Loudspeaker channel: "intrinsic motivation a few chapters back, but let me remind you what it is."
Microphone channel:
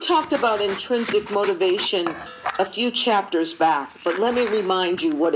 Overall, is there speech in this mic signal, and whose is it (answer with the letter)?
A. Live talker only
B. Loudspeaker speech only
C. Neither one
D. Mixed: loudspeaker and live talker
B